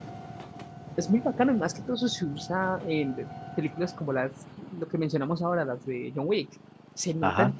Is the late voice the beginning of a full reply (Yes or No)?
Yes